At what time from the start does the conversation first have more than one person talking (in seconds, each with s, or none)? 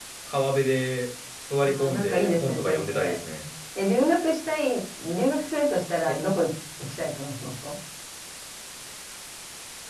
1.6 s